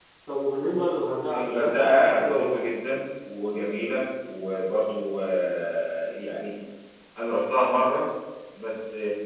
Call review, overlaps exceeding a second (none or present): present